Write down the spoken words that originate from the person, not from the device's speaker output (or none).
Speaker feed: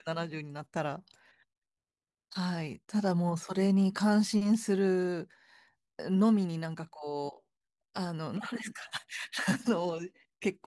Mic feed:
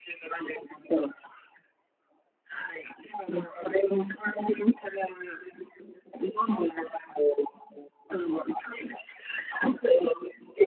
none